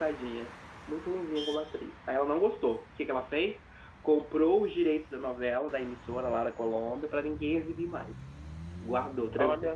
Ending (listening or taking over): listening